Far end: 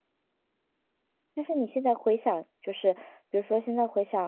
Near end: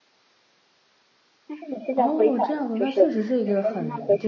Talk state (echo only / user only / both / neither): both